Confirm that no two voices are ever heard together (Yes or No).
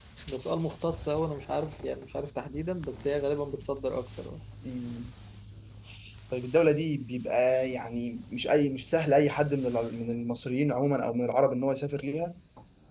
Yes